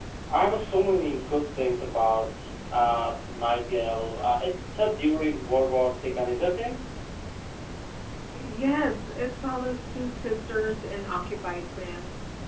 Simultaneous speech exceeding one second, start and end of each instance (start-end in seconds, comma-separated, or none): none